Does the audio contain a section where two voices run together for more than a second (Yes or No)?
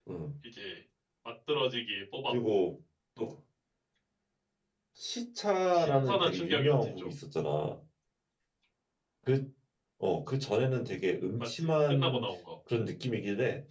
Yes